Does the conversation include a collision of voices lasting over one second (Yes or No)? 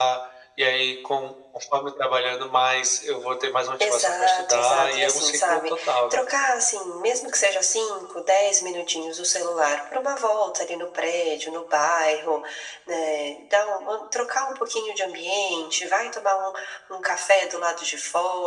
Yes